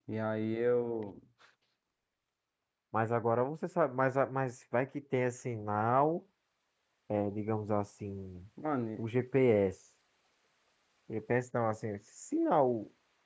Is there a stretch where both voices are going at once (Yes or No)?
No